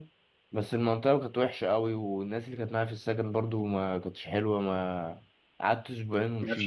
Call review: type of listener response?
listening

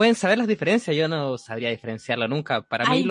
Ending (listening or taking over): listening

